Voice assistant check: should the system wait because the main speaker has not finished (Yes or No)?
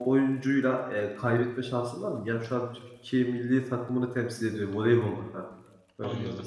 No